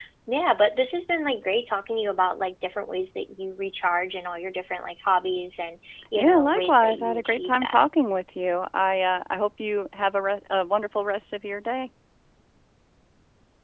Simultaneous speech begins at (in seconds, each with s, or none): 6.2 s